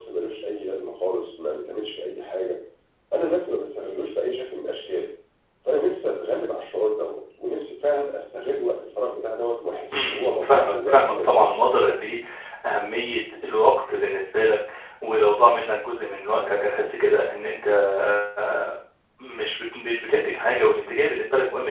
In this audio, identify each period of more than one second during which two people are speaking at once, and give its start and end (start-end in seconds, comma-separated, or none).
9.9-11.7